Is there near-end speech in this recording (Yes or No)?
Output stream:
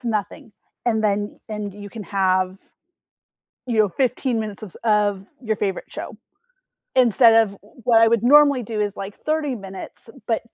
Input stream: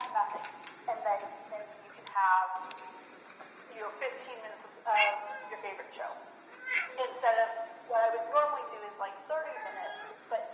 No